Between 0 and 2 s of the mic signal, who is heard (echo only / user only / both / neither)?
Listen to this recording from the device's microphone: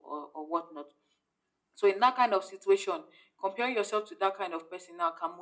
echo only